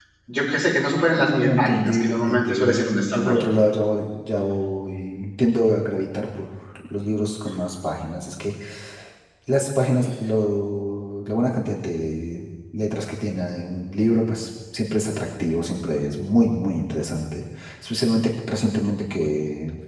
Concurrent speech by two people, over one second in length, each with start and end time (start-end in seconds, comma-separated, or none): 1.2-3.4